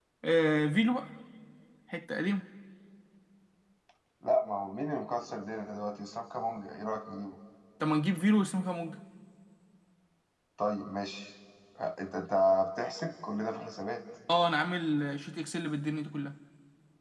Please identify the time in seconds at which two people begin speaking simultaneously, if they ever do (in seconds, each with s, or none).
none